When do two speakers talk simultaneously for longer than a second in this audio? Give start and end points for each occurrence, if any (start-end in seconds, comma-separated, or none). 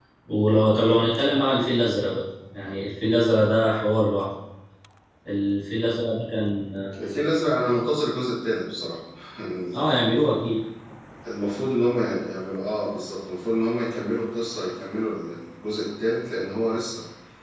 none